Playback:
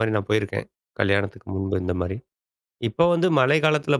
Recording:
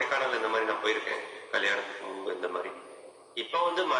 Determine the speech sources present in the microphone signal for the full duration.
echo only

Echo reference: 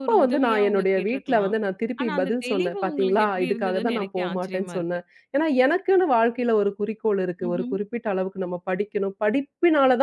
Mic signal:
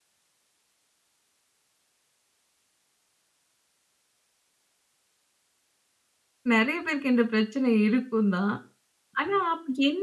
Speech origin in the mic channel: user only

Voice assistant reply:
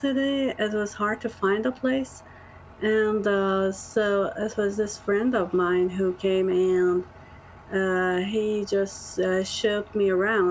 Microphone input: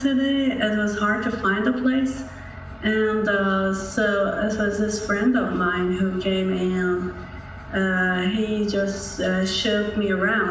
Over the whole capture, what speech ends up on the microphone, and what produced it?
echo only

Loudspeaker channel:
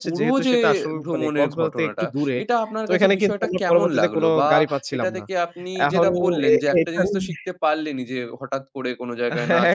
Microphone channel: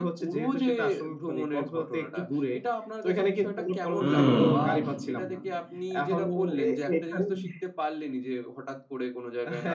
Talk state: both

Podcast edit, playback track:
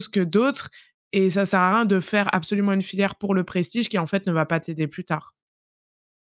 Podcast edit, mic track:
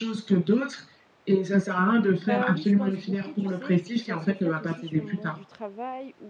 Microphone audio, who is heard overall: both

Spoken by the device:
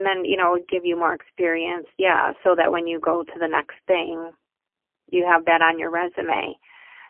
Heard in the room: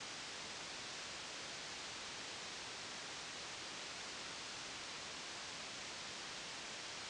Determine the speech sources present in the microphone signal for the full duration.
neither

